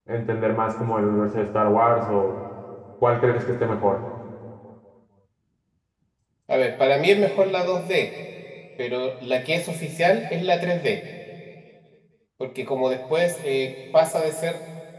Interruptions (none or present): none